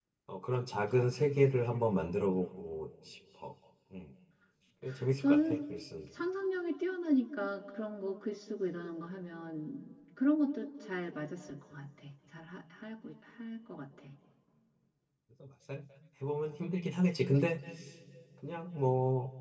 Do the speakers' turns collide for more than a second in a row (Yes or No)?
No